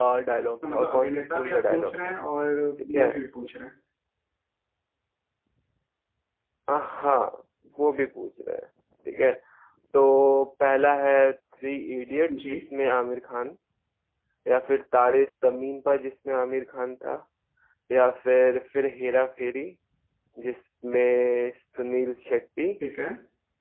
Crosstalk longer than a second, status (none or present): present